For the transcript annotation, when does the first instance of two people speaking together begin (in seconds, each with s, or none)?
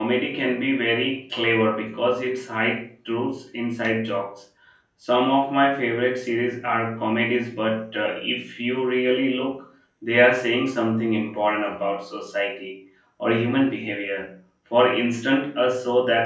none